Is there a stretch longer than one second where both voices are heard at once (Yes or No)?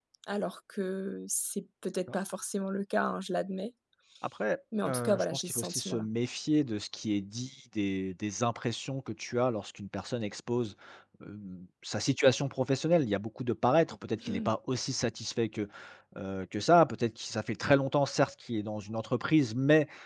Yes